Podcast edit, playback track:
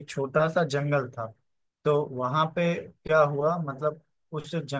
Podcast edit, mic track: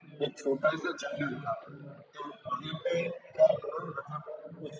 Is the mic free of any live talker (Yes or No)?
Yes